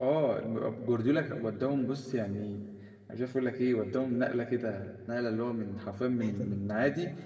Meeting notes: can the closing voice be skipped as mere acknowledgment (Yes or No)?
Yes